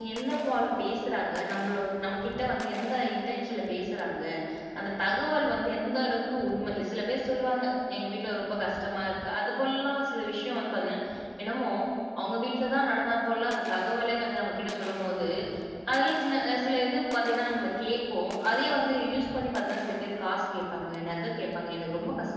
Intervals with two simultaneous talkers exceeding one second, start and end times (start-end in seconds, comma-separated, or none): none